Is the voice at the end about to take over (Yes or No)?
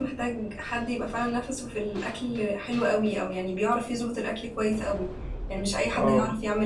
No